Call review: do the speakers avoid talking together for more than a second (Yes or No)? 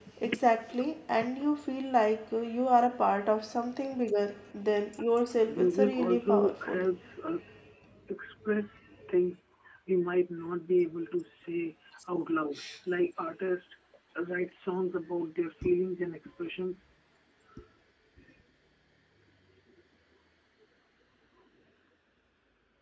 No